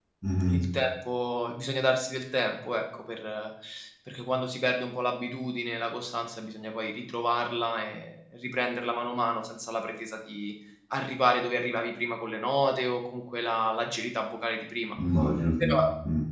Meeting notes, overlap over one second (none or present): none